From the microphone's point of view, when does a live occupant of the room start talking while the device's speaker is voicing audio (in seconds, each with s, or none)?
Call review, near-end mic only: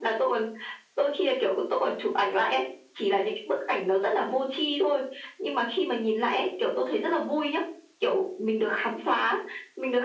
none